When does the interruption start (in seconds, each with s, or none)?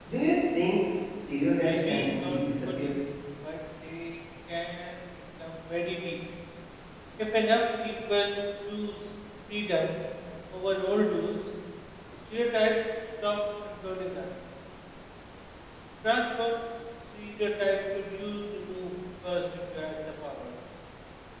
1.6 s